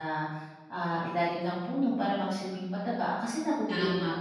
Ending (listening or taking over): taking over